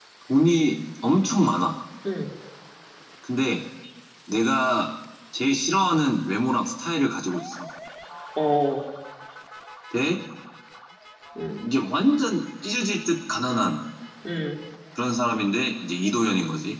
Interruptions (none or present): none